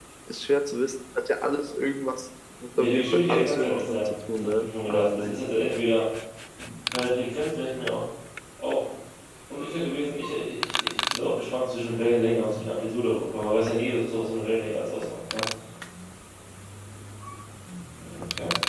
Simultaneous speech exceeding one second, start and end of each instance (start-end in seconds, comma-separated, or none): 2.8-5.4